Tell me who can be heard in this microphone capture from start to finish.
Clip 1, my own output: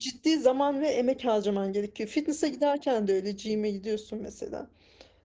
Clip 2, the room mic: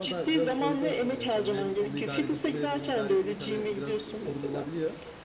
both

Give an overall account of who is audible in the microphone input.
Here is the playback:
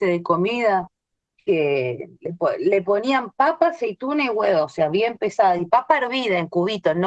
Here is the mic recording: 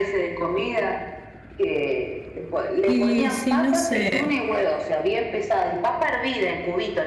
both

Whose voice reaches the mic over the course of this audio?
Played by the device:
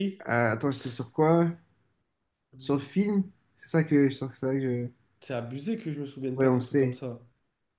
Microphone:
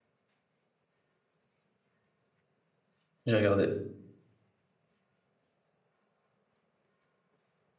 user only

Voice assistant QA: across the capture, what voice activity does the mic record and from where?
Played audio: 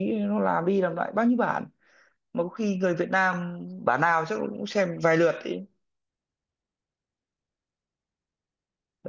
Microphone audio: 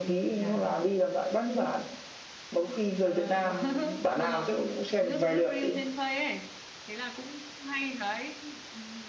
both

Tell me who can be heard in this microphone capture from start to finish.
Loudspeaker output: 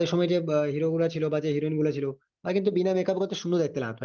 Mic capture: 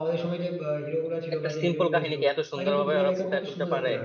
both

